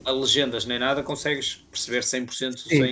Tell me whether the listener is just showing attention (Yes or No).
No